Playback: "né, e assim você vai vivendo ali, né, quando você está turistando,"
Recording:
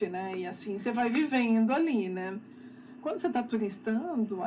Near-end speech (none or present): none